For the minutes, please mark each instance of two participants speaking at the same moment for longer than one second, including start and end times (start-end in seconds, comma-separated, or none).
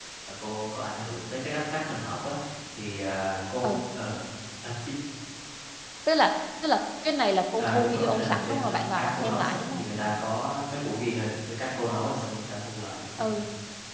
7.6-9.8